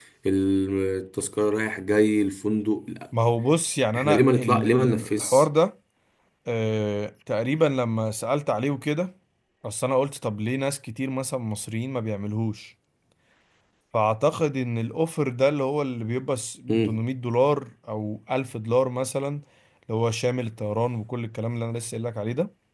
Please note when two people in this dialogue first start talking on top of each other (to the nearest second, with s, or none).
4 s